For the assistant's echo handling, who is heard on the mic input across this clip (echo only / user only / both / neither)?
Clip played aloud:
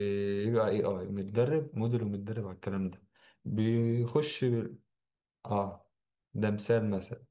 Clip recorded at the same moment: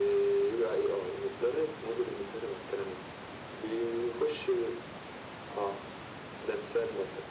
echo only